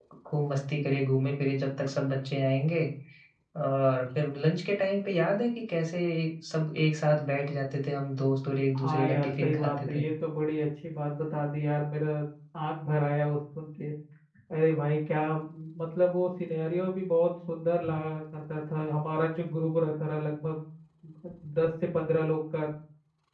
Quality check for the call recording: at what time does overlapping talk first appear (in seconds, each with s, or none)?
8.8 s